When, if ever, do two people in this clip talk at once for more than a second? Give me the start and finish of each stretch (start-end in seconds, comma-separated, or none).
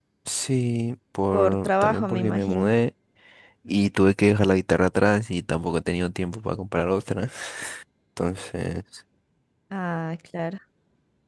1.3-2.7